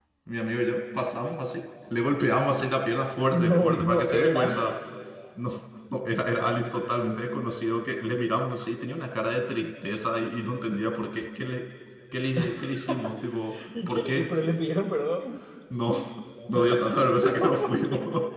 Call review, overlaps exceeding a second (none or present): present